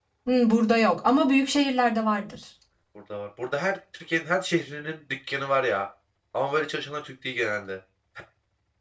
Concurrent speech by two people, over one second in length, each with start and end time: none

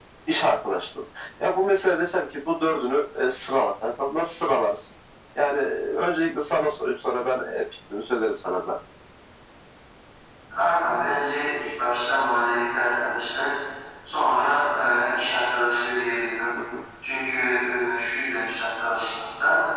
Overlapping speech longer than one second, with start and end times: none

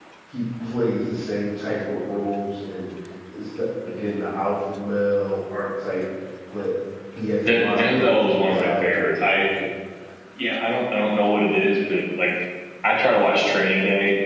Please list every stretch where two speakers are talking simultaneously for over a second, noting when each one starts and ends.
7.5-9.4

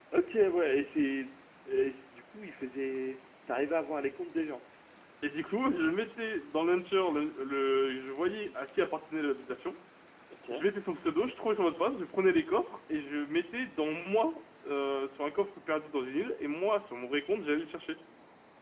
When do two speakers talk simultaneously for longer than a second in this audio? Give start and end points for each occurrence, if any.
none

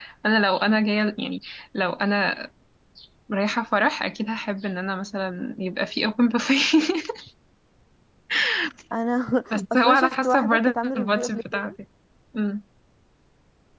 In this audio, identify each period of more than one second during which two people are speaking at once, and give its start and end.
9.5-11.7

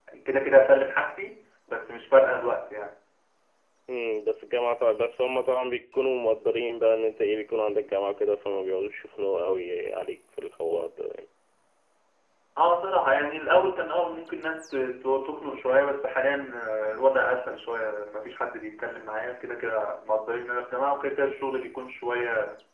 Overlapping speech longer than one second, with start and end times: none

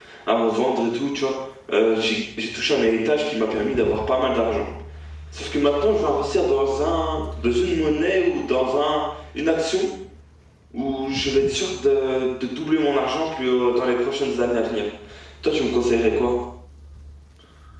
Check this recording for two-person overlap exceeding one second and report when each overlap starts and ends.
none

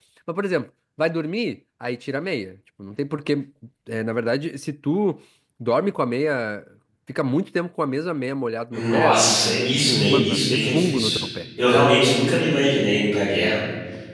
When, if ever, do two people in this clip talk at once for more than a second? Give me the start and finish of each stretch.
8.7-11.2

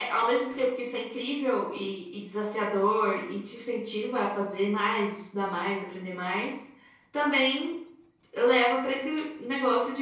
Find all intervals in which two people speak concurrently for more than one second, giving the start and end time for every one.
none

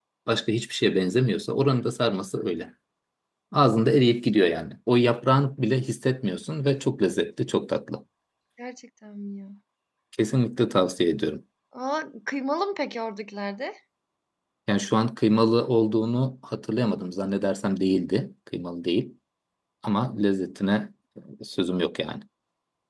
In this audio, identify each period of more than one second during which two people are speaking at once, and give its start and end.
none

